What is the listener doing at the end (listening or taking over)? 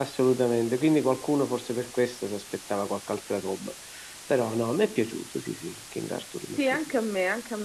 taking over